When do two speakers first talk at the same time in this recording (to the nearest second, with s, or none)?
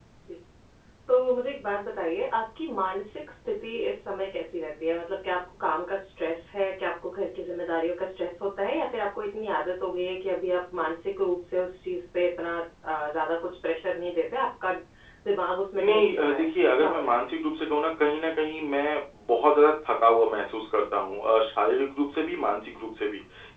16 s